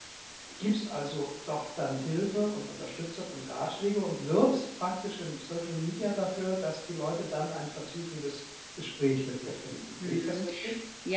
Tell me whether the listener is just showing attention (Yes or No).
No